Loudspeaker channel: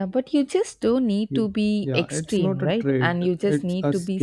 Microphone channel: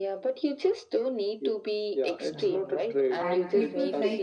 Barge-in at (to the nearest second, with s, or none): 2 s